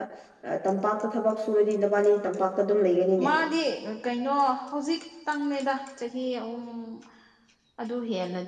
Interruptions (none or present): none